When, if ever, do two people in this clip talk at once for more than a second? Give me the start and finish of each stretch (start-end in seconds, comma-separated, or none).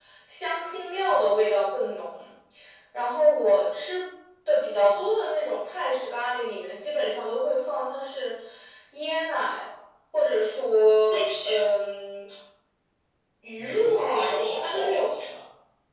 13.6-15.1